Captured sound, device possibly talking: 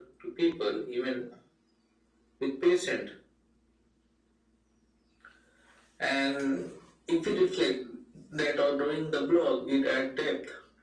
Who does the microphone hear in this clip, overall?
echo only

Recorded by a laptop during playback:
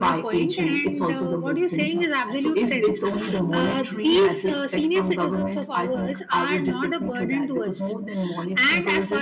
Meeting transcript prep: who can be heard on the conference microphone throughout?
both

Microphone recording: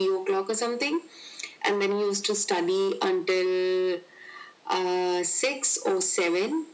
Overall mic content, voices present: echo only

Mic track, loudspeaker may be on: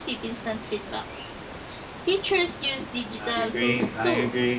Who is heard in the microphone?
both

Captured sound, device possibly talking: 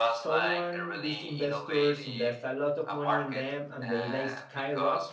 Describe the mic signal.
both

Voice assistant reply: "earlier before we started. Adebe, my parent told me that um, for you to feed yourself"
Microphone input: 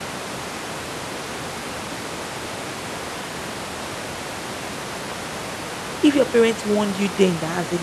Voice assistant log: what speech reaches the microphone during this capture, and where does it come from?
user only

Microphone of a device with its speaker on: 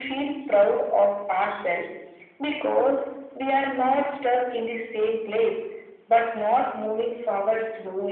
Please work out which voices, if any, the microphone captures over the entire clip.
echo only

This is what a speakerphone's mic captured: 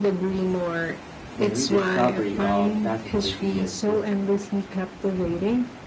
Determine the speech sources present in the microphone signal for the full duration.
both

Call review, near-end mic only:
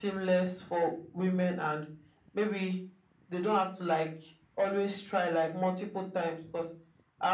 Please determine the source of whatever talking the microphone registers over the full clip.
echo only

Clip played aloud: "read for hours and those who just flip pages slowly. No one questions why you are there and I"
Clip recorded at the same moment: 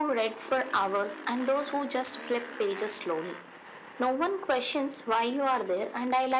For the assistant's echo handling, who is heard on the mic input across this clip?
echo only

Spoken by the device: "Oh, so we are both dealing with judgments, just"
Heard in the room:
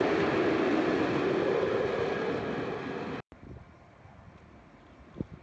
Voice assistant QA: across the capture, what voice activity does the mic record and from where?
neither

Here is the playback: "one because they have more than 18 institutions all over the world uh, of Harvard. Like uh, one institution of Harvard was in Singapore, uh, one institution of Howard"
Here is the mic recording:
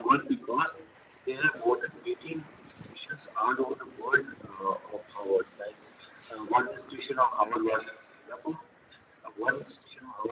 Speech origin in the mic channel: echo only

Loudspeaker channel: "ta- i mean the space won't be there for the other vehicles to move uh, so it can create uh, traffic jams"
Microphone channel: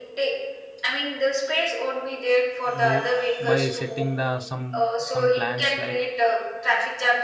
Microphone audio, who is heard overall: both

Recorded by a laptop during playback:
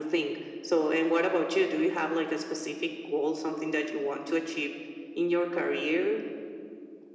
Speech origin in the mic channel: echo only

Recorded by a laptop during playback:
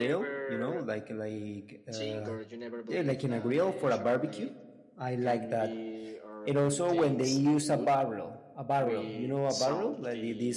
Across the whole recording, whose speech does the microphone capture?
both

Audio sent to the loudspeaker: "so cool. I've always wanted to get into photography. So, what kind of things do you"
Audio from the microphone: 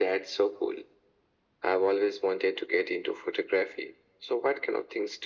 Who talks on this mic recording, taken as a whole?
echo only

